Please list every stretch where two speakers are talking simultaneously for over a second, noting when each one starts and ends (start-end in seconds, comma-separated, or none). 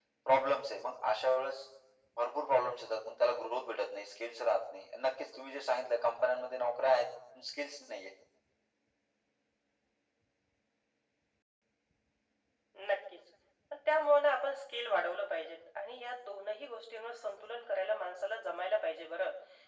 none